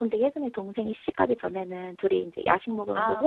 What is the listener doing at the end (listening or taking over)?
listening